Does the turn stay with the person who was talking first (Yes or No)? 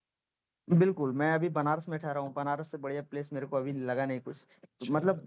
Yes